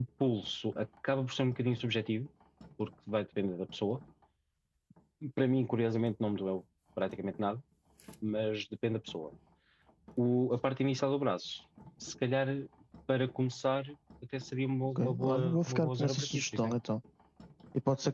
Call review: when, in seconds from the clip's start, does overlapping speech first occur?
15.0 s

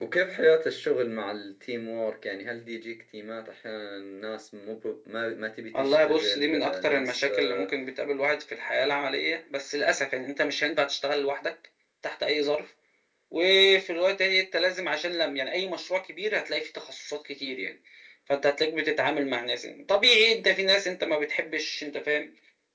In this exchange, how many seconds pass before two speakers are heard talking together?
5.7 s

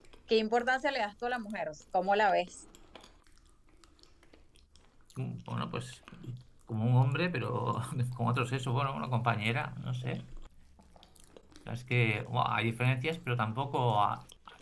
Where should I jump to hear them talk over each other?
none

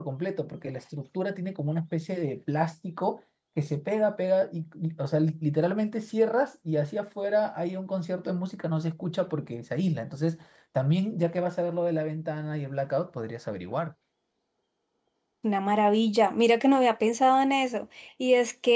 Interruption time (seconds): none

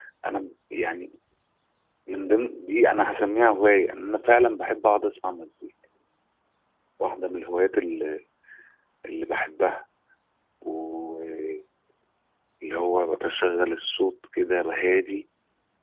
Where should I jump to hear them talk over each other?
none

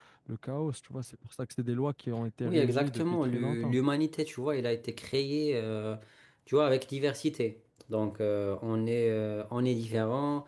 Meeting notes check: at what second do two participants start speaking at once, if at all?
2.4 s

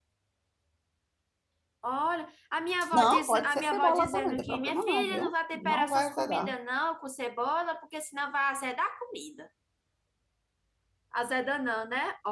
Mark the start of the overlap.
2.9 s

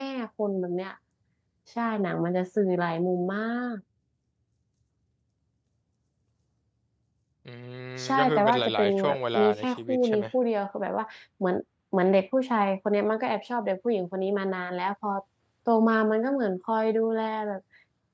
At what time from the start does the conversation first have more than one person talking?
8.0 s

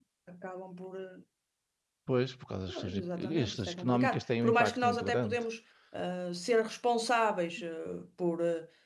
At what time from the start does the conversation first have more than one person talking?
2.7 s

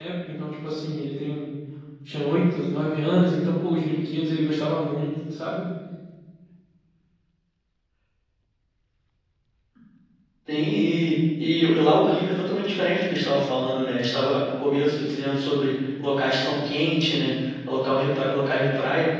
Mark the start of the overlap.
none

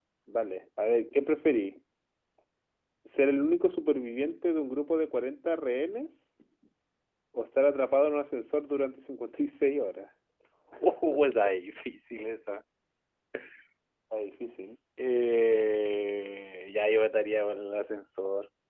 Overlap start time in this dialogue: none

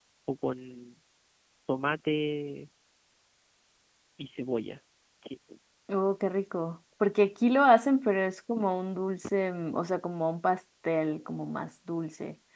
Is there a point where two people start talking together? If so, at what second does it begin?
none

